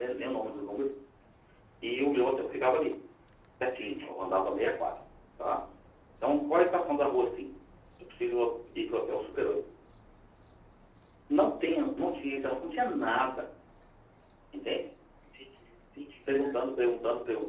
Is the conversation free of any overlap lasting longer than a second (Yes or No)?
Yes